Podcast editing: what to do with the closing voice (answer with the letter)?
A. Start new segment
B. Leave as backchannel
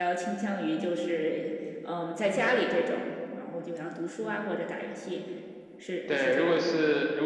A